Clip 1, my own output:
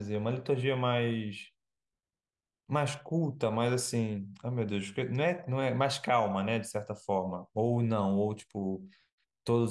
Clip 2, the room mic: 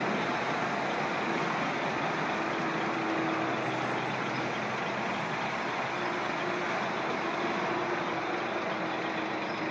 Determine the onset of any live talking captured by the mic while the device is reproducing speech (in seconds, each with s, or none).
none